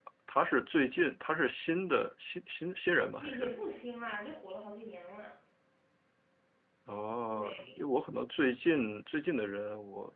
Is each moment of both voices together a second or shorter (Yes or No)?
Yes